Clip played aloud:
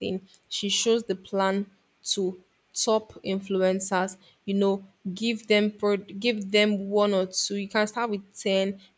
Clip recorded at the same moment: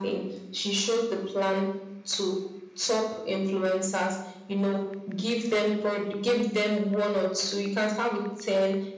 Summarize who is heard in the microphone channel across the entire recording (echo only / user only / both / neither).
echo only